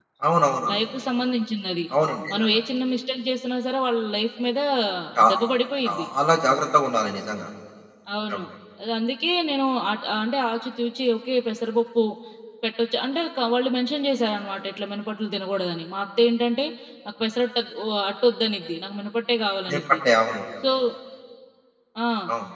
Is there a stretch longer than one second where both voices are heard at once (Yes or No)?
No